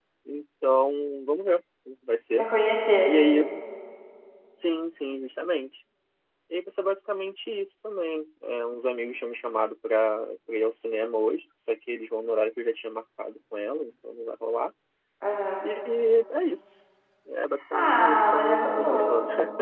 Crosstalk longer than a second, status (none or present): present